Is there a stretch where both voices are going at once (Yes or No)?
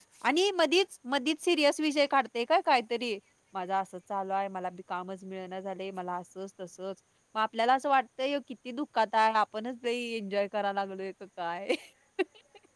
No